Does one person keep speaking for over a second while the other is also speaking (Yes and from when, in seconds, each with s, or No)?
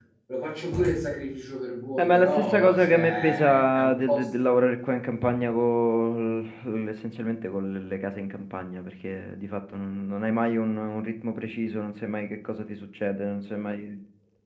Yes, from 2.0 s